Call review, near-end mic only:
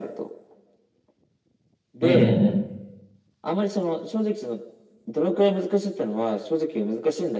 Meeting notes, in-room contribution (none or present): present